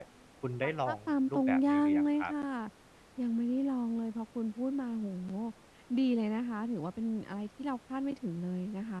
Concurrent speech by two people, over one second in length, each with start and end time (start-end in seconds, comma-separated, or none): 0.6-2.3